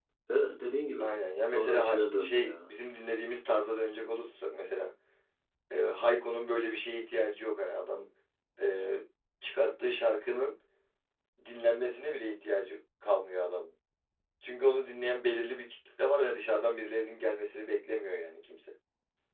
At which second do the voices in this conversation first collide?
1.5 s

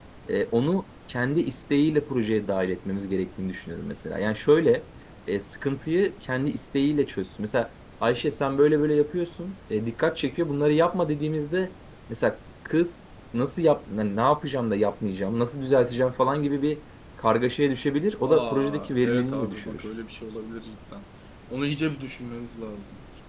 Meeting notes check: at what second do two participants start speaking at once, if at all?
18.3 s

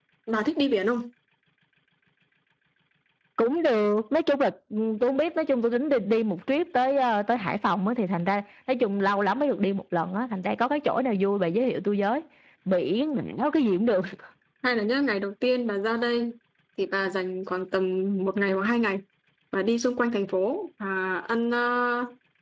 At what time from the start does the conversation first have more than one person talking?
none

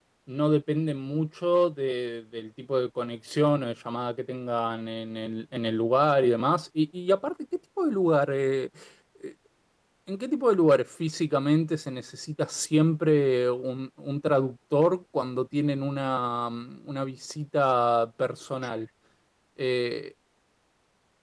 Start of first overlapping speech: none

